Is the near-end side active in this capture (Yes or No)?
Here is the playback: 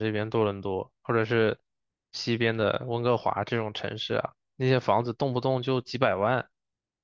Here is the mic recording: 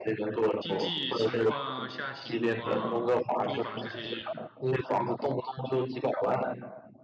Yes